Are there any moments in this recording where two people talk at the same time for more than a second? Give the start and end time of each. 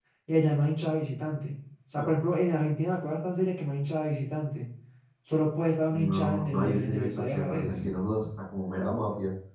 5.9-7.8

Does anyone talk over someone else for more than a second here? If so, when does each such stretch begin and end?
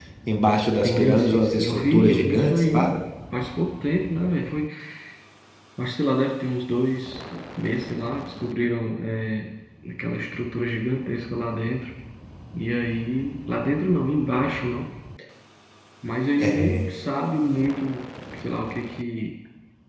0.8-2.9

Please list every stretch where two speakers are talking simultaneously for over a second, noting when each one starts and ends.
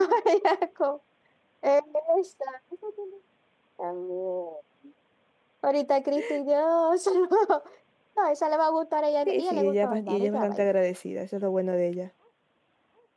9.3-10.7

